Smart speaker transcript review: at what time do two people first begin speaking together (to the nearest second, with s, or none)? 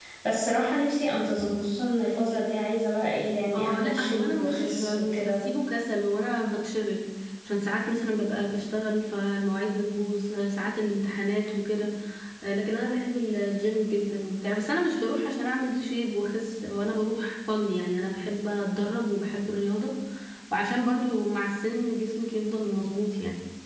4 s